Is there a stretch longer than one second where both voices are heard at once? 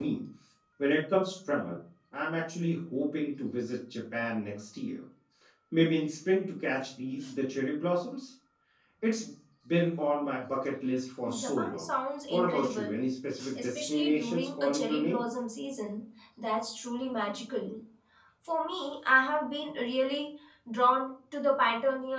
Yes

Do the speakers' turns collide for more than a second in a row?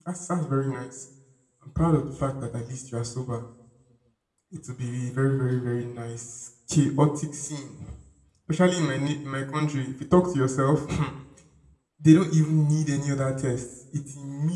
No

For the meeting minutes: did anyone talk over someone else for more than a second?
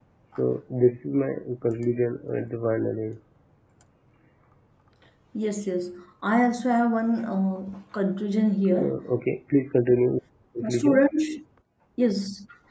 No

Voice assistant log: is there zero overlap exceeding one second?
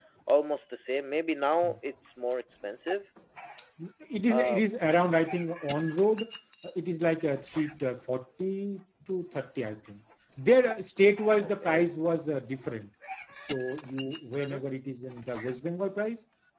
Yes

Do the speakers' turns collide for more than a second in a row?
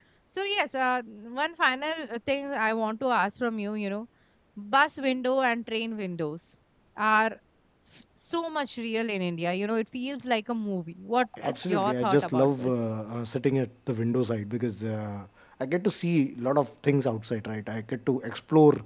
Yes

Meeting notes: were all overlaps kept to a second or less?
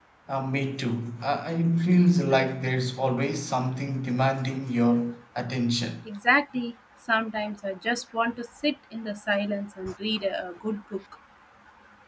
Yes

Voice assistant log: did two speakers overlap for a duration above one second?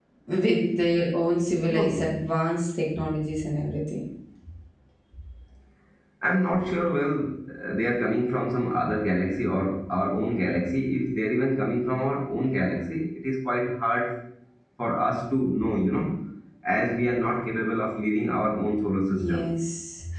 No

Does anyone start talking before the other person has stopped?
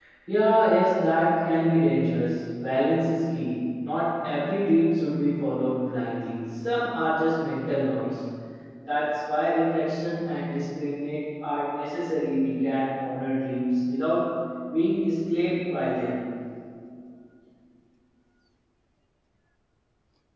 No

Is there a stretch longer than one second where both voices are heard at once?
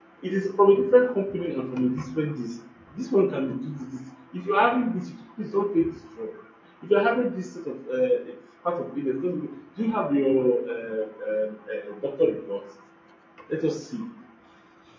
No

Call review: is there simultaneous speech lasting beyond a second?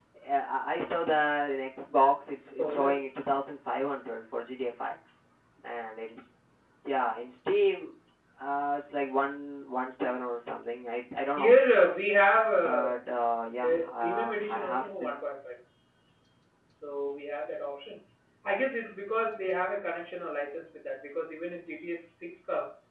Yes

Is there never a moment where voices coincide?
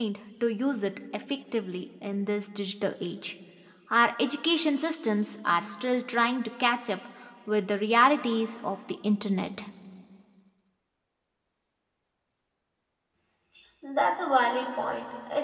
Yes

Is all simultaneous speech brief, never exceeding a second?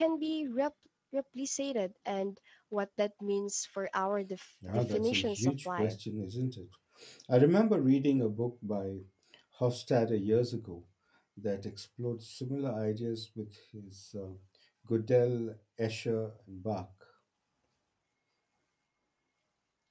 No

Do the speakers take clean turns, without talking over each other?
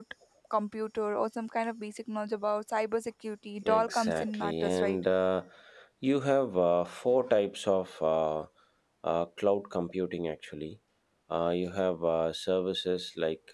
No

